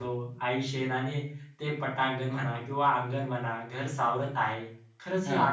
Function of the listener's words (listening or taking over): listening